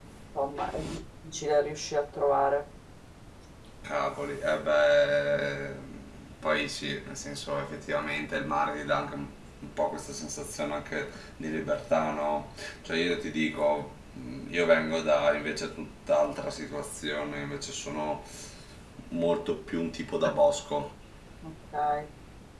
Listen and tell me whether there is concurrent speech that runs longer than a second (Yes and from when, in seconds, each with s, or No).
No